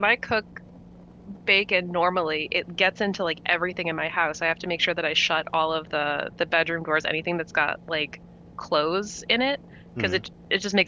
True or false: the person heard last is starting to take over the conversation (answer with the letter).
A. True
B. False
B